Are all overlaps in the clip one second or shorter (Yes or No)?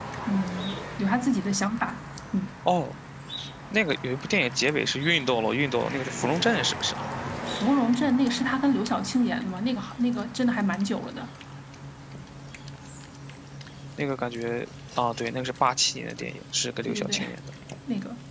Yes